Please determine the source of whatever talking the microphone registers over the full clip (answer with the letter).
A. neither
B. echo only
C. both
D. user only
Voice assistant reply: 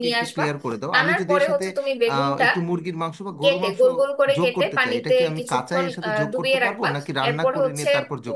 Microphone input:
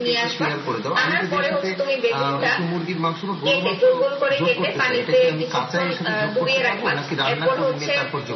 B